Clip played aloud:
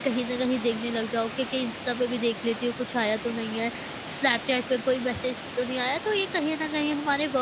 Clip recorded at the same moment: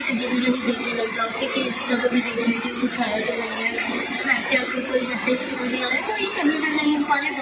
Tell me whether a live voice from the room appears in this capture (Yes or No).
No